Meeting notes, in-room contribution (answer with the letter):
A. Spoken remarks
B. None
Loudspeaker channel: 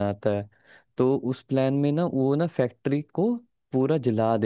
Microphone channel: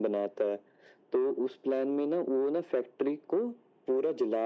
B